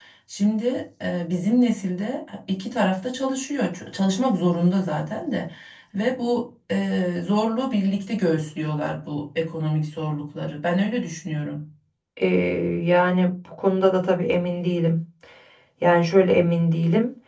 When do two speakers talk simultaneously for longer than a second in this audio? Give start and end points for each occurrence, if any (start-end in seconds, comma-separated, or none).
none